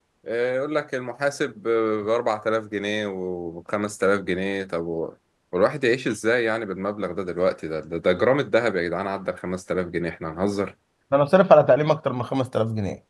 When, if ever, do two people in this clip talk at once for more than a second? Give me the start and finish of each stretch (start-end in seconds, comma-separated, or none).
none